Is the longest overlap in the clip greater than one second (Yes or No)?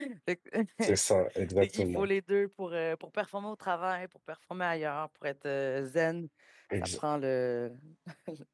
No